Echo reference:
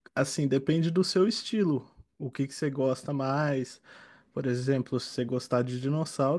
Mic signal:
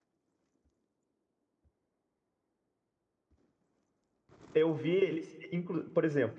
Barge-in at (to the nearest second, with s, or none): 5 s